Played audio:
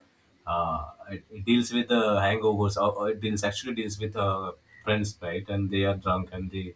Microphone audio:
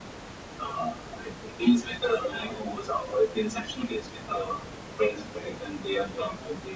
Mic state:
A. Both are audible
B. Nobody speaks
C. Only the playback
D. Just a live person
C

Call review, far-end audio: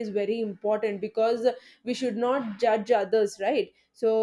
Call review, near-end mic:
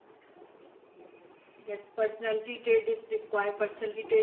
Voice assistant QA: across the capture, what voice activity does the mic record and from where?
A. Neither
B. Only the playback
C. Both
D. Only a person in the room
D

